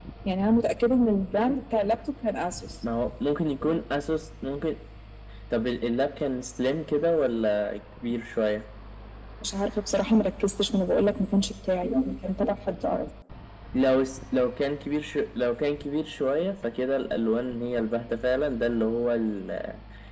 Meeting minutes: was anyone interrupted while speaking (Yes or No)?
No